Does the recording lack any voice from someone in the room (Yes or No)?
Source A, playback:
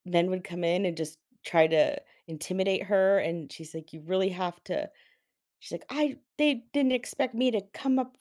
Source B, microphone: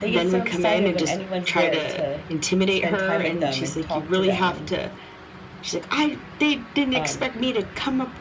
No